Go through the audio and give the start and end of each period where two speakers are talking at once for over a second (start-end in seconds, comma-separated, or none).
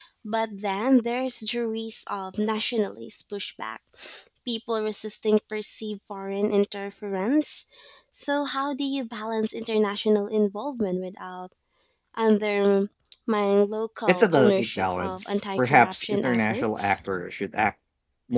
14.1-17.0